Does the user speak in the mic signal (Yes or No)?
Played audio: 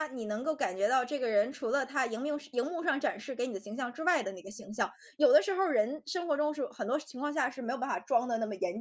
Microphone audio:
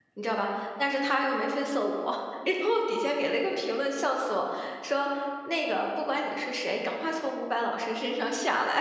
Yes